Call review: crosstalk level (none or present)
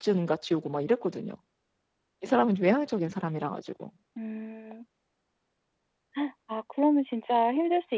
none